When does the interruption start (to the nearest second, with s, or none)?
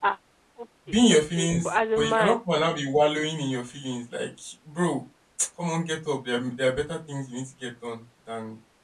1 s